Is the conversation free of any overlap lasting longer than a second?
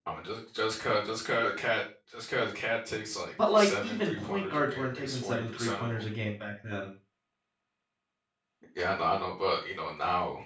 No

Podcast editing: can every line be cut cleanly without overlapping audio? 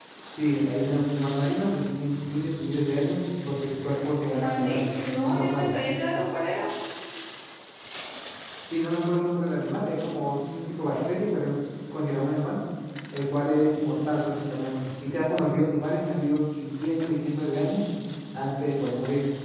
No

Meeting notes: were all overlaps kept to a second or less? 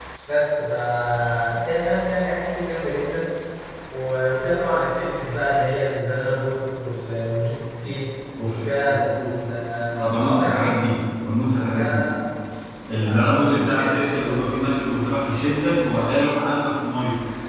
No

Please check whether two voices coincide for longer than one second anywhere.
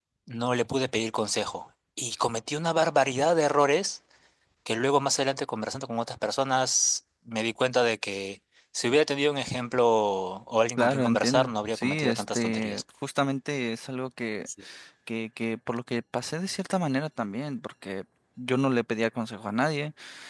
Yes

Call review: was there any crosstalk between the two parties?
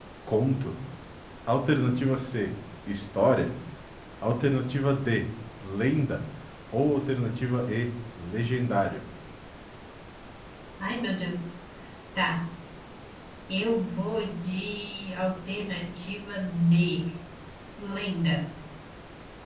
No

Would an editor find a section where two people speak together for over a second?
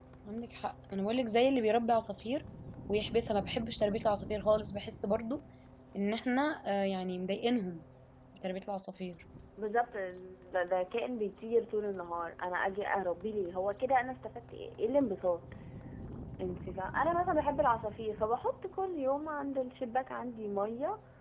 No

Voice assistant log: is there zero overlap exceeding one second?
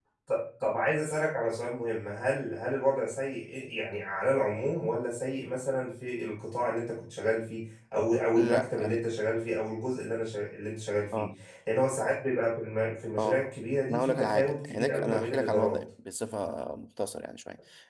No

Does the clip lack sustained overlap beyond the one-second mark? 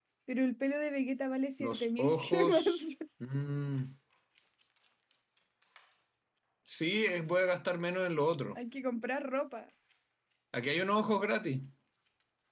No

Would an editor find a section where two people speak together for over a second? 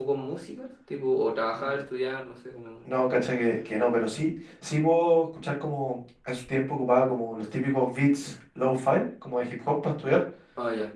No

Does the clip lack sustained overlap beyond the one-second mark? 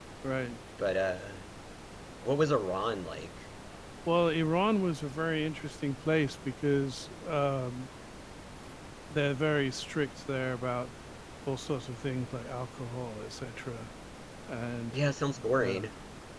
Yes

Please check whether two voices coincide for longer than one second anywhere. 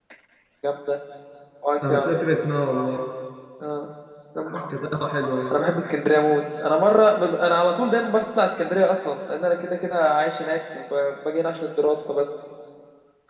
No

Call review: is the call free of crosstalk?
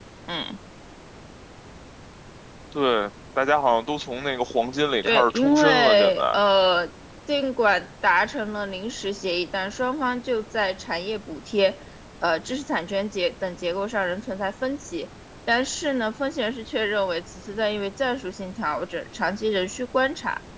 No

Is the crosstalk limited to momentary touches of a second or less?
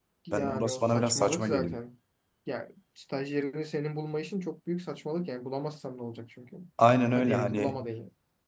No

